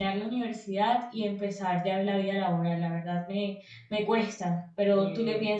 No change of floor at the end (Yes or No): No